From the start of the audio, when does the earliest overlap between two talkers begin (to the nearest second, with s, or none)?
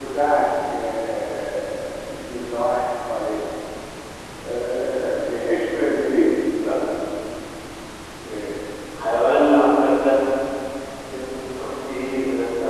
none